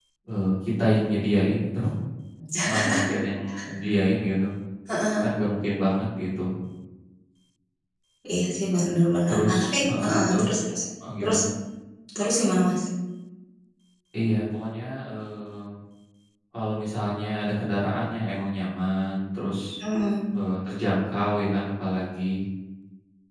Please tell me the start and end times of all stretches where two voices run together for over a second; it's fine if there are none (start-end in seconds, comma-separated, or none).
9.3-10.5